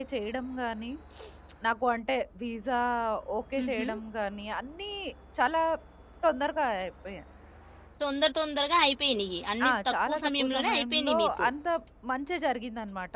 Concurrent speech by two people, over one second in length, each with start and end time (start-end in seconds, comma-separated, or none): 9.6-11.5